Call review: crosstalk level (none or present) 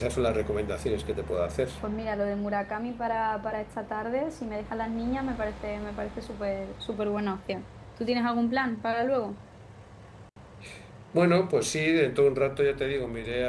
none